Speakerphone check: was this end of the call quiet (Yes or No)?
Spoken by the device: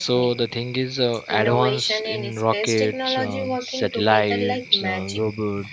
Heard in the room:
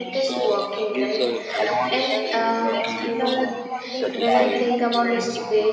No